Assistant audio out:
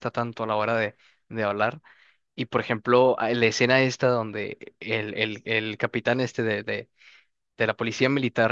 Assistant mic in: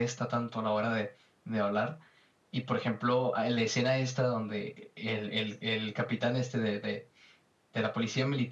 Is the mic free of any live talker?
Yes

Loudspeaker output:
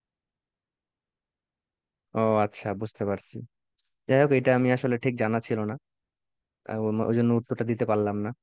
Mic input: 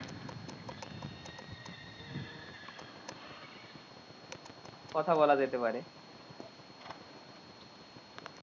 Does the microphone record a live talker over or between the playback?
Yes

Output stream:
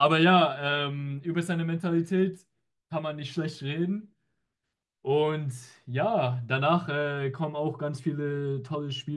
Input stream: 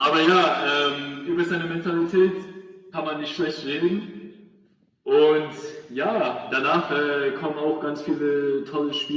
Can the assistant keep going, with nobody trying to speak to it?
Yes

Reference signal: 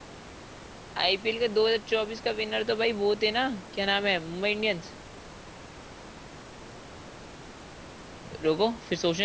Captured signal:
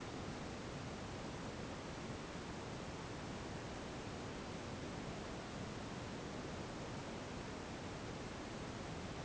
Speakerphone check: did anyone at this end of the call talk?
No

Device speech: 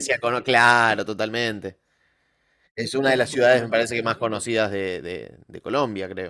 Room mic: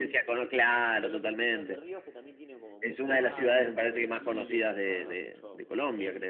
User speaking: Yes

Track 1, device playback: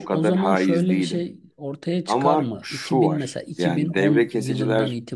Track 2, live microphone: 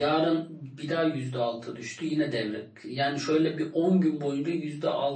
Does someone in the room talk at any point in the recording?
Yes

